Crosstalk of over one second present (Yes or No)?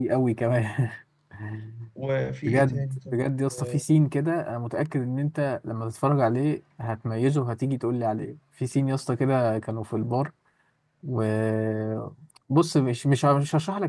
Yes